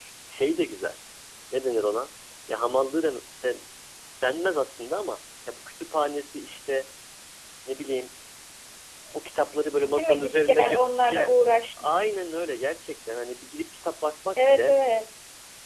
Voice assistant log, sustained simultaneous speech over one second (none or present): present